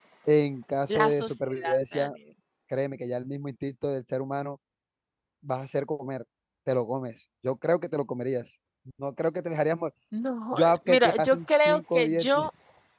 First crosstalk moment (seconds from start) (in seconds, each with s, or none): 0.9 s